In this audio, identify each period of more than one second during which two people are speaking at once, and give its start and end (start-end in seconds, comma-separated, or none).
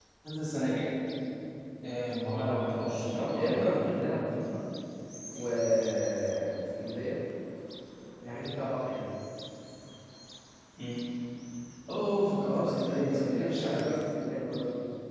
2.3-3.8, 12.4-13.9